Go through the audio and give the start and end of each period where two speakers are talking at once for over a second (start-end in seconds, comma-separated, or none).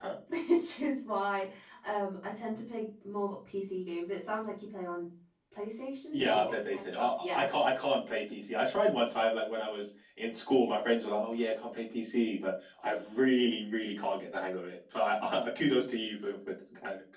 6.1-7.5